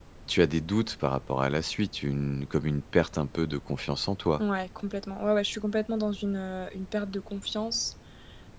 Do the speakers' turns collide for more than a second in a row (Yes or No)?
No